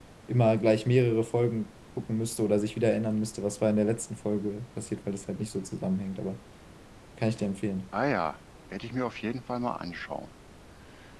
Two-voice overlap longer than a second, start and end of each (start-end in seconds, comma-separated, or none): none